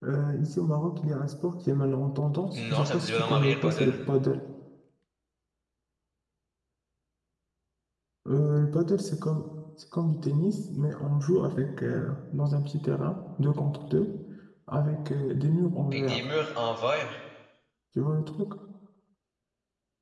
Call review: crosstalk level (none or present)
present